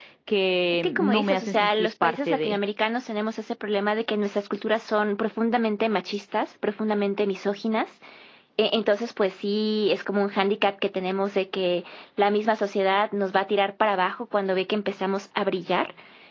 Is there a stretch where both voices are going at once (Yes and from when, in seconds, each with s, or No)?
Yes, from 0.8 s